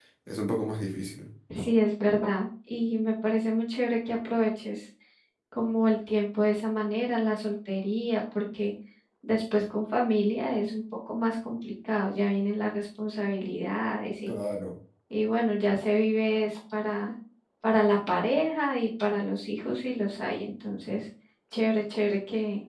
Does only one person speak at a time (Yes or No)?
Yes